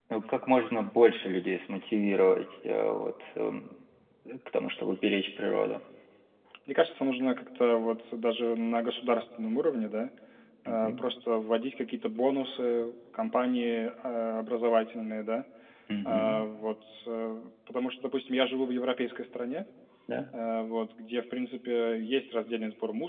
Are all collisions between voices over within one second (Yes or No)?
Yes